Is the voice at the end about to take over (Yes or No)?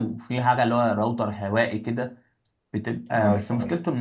No